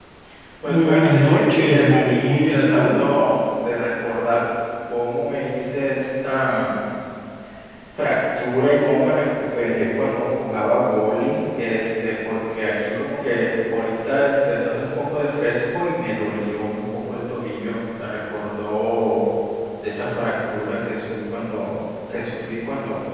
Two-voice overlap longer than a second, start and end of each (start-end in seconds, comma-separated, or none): 0.7-3.1